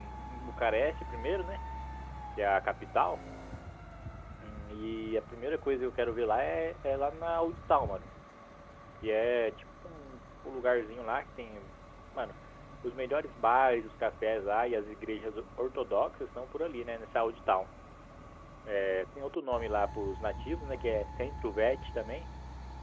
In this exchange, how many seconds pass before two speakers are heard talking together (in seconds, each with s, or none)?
none